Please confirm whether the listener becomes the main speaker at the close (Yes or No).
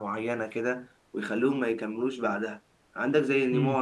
No